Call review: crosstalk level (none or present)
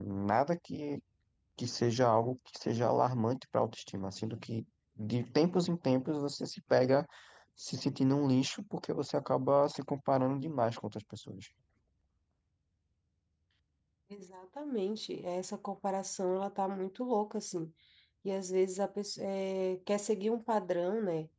none